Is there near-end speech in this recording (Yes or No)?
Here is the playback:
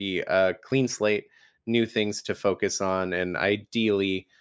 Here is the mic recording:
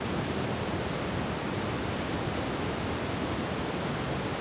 No